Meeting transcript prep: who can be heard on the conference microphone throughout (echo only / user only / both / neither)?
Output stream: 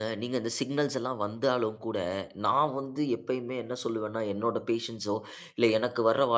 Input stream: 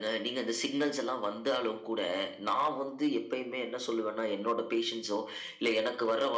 echo only